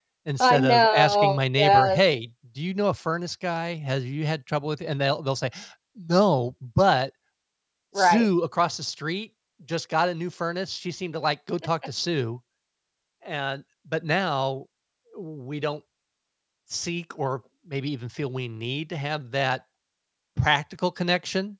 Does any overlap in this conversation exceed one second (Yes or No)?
Yes